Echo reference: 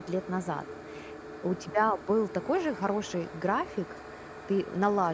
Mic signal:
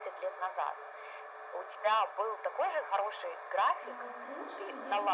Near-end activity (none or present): present